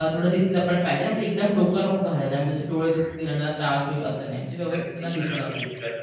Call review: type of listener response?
taking over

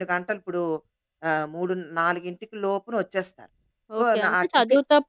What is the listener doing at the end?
taking over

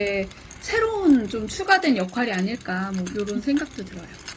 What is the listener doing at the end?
taking over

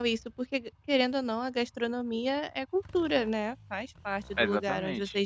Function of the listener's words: taking over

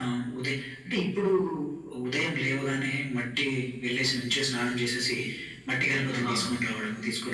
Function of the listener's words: listening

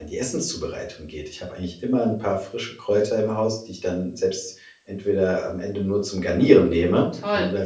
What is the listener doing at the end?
taking over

